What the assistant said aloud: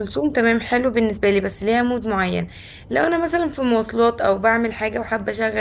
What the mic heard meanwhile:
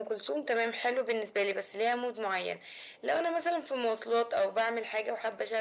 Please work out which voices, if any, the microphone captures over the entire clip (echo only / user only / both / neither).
echo only